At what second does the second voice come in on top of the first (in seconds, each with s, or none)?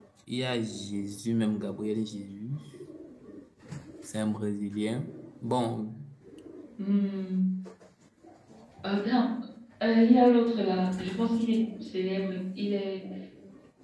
none